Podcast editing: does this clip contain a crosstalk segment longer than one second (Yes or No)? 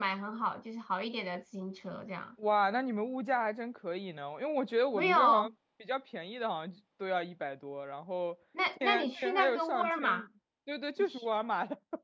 Yes